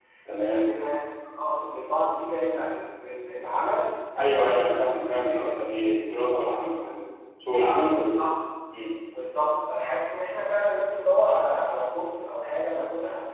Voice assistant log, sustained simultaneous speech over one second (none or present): present